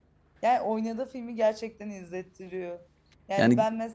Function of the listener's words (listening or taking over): listening